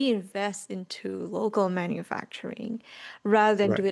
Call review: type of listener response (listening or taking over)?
listening